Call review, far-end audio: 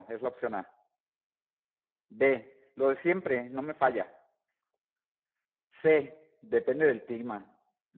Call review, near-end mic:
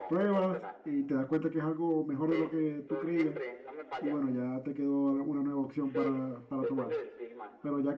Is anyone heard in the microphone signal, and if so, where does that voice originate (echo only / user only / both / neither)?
both